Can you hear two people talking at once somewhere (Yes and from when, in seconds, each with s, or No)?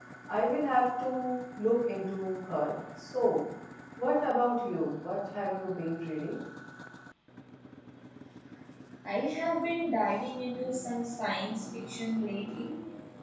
No